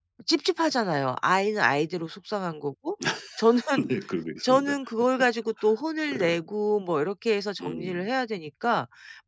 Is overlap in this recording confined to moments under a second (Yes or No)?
Yes